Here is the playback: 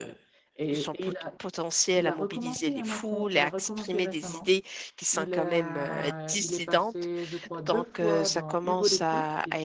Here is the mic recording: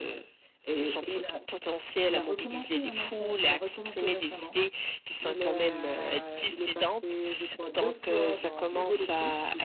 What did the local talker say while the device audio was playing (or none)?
none